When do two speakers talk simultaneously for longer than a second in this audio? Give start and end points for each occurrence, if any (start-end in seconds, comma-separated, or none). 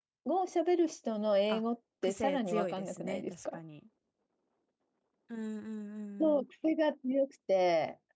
2.0-3.6